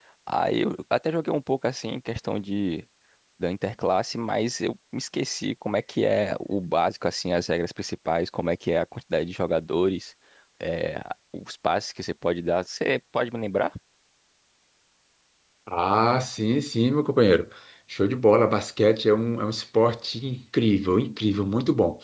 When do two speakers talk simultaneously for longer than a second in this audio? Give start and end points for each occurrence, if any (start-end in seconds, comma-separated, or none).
none